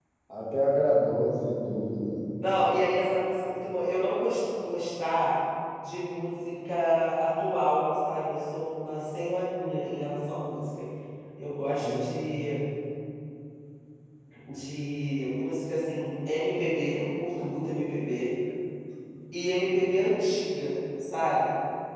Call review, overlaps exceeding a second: none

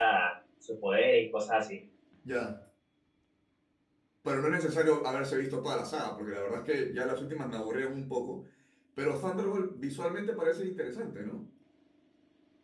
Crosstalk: none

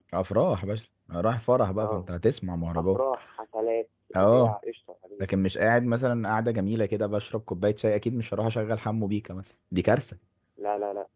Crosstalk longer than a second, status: none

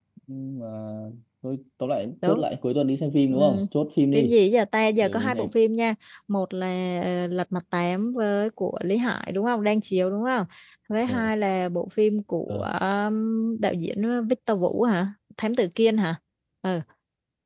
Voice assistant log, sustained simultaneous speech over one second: none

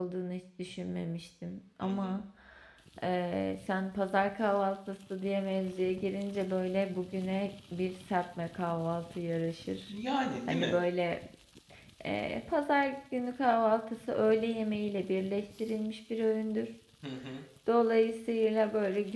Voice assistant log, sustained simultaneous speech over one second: none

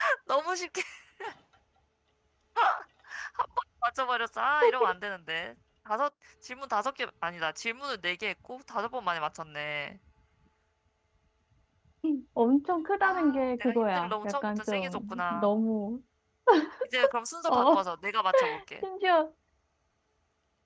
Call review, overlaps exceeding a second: present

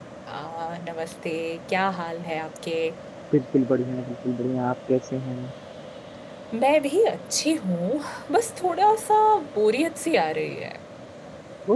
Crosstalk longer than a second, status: none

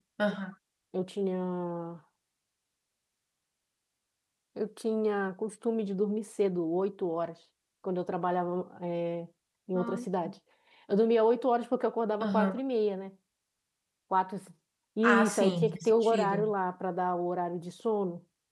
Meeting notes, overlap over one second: present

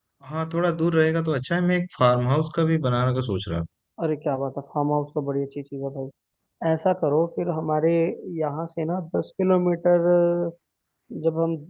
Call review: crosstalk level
none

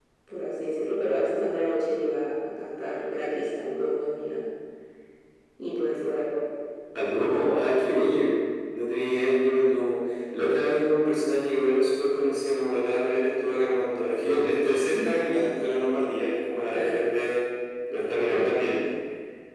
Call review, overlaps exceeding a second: none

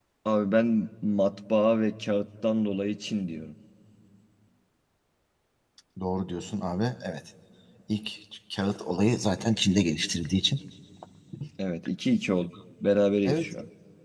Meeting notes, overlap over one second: none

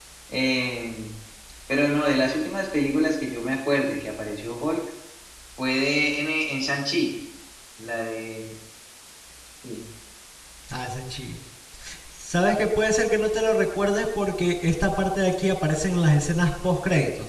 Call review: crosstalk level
none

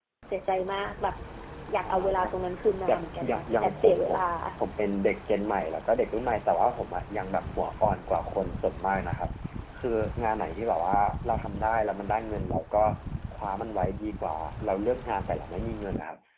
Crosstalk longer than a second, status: present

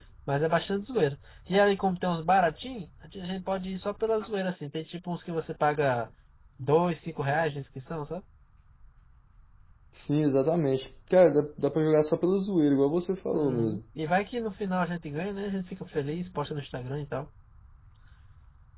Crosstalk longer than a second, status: none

